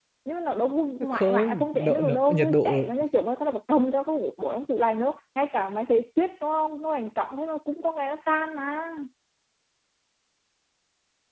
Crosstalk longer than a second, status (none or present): present